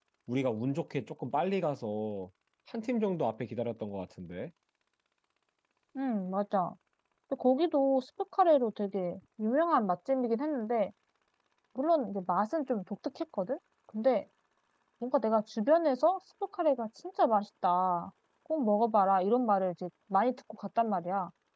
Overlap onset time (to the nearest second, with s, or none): none